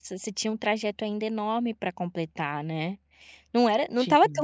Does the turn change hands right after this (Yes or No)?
No